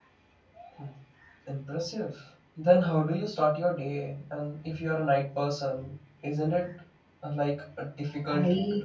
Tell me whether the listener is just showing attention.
No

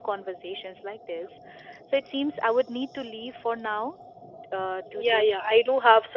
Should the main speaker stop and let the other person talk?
Yes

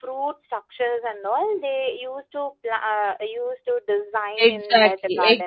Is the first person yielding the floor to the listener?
Yes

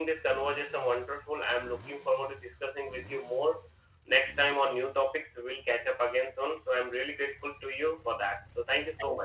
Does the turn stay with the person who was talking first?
No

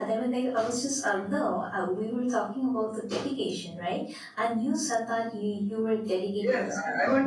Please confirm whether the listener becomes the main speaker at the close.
Yes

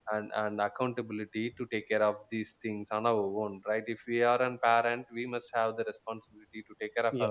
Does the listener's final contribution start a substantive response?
No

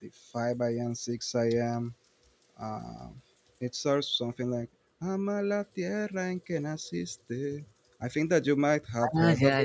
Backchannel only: No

